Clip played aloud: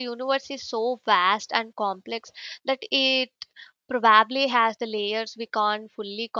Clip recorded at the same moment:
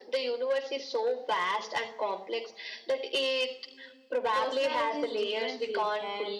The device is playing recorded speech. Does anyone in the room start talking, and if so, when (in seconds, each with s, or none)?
4.3 s